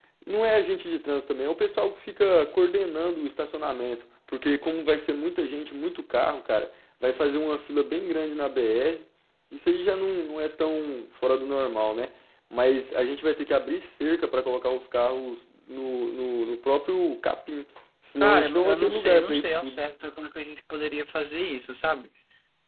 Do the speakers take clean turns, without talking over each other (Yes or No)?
No